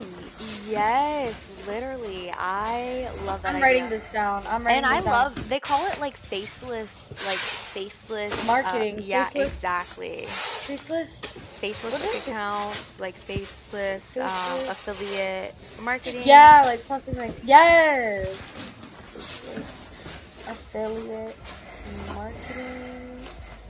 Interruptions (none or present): present